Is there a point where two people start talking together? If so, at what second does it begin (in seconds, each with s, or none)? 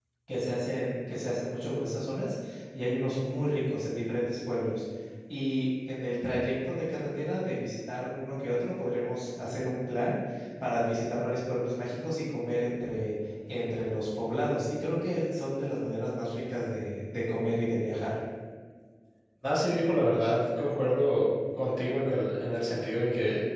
none